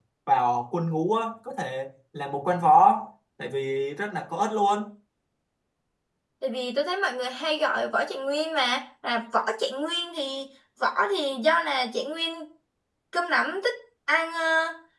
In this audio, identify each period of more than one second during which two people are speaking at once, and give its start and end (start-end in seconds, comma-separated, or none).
none